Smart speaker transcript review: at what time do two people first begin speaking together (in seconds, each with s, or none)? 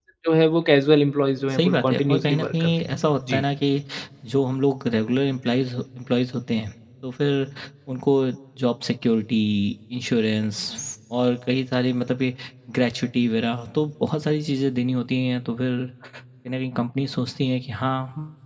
1.5 s